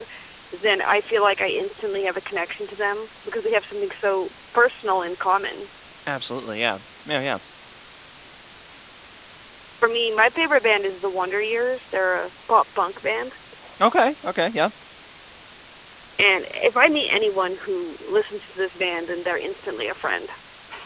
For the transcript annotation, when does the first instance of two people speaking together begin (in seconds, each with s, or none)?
none